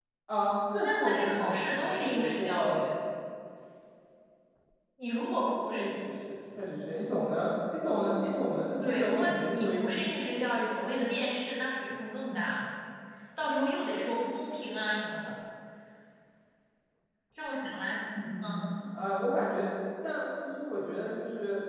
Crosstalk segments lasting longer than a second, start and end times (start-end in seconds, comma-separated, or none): 0.8-2.7, 8.8-10.2